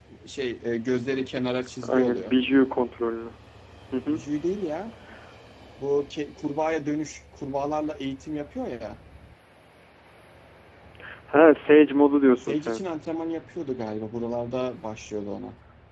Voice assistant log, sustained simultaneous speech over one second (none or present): none